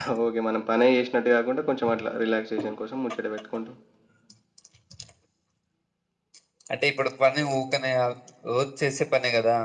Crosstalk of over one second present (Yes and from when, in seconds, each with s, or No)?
No